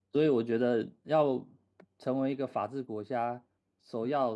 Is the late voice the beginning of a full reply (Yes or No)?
No